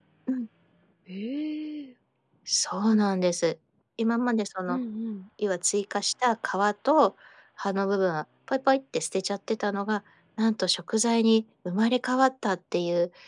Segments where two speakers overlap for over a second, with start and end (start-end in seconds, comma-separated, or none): none